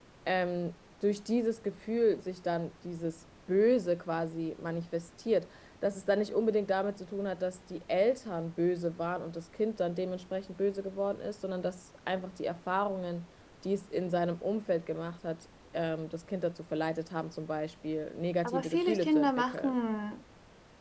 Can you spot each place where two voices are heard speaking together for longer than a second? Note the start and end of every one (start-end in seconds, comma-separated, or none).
18.4-19.7